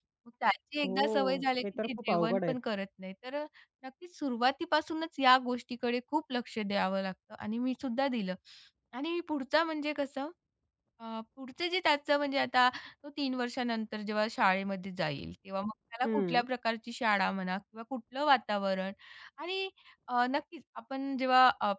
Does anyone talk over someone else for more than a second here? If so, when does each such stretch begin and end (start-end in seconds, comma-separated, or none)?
0.8-2.6